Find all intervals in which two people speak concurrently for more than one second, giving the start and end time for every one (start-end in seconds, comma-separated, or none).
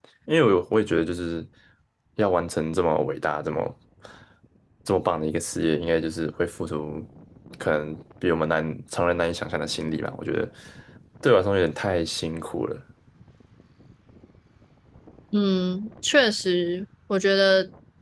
none